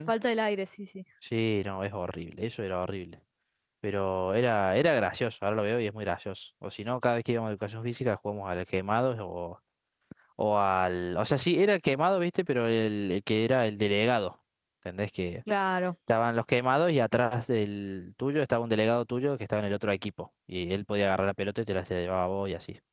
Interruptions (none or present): none